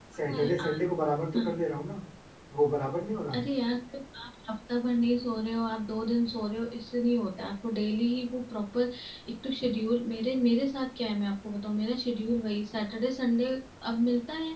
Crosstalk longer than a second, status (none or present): none